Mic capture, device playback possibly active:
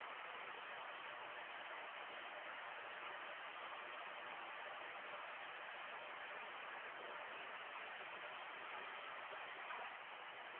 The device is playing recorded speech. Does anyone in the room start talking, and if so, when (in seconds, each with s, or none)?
none